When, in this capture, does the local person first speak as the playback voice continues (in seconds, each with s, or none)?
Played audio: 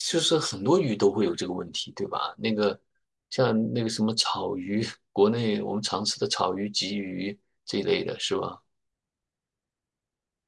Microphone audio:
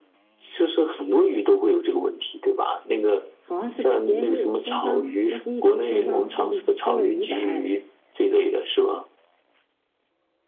3.4 s